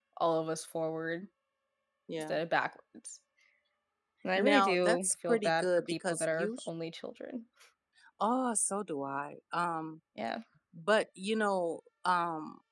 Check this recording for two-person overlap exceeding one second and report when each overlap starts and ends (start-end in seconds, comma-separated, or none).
4.4-6.7